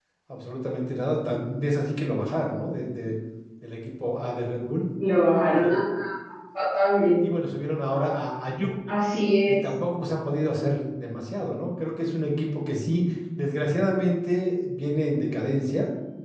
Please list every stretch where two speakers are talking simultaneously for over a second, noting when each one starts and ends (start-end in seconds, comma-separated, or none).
none